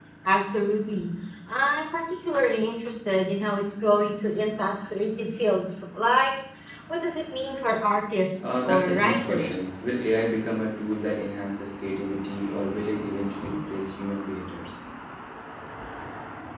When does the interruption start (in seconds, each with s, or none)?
8.4 s